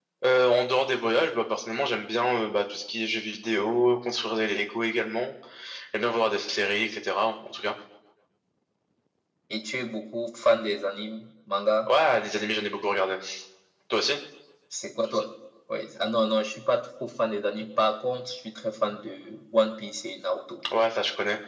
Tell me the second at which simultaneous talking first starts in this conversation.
none

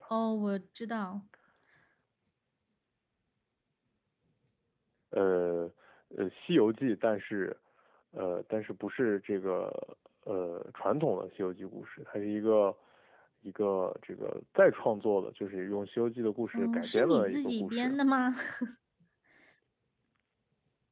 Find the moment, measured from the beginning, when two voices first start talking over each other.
16.5 s

